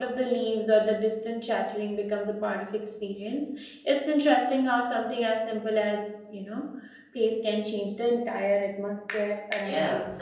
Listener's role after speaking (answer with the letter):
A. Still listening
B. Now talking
B